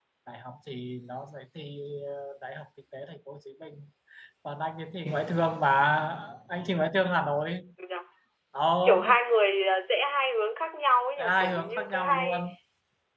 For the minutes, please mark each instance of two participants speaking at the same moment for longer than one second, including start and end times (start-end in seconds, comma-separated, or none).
11.2-12.5